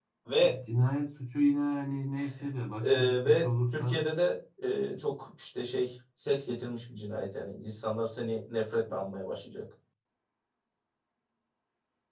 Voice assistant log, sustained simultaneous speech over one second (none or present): present